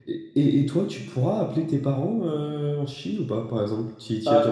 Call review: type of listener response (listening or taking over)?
taking over